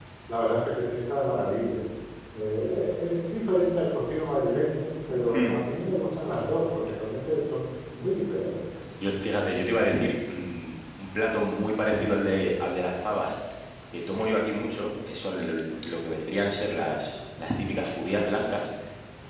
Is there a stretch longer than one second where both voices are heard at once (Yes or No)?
No